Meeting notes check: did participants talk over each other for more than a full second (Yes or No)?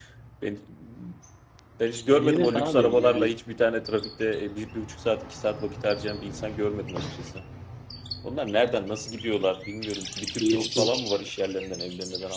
Yes